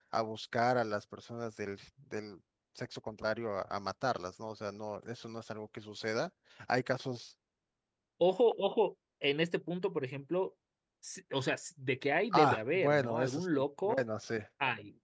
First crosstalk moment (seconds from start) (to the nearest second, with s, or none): 12 s